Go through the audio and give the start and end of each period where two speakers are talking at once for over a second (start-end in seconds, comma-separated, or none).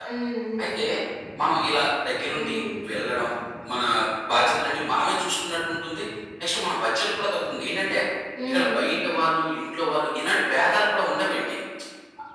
none